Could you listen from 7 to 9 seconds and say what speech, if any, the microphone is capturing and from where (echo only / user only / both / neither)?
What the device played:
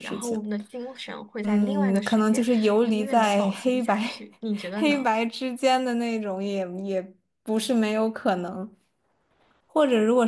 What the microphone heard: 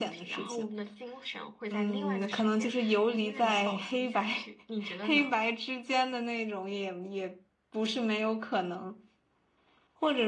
echo only